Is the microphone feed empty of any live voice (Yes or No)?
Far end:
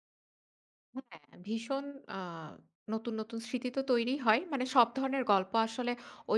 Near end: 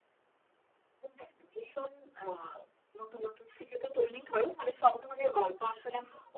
Yes